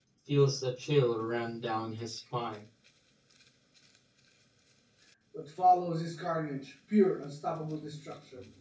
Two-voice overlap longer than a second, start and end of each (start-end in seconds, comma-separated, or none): none